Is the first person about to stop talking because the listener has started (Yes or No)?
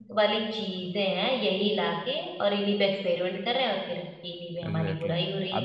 Yes